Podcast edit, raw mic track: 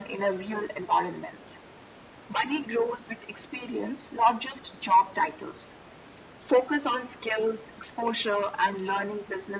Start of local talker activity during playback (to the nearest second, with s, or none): none